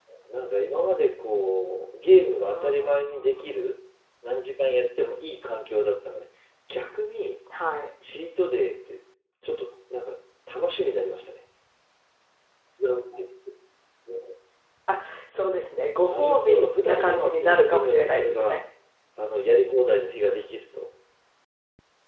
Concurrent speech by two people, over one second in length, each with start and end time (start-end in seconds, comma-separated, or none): 2.5-3.8, 15.9-18.6